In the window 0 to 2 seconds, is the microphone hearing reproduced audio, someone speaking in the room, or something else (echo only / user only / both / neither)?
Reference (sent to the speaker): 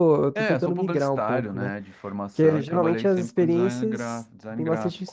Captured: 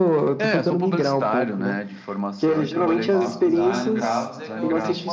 echo only